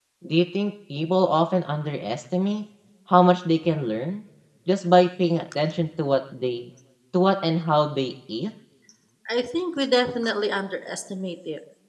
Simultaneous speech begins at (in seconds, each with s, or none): none